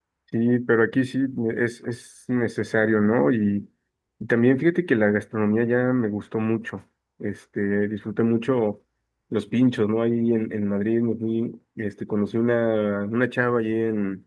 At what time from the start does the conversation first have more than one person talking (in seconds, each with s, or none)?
none